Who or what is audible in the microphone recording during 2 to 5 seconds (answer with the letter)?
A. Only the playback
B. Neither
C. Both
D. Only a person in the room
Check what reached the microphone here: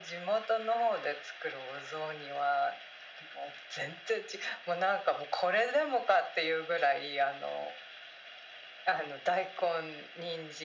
A